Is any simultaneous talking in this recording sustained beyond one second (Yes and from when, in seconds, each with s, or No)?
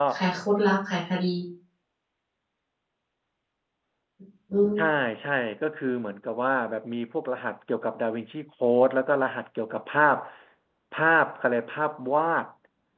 No